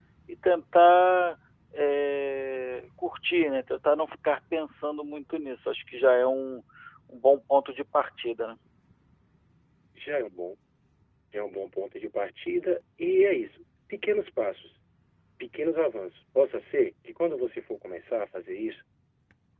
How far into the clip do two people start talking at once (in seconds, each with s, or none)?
none